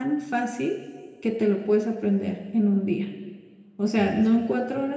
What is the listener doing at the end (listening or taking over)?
listening